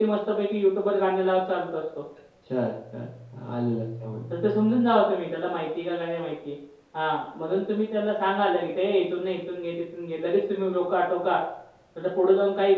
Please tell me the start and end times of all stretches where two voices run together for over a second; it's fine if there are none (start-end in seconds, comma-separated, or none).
none